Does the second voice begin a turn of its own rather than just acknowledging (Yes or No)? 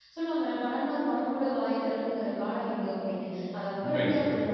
No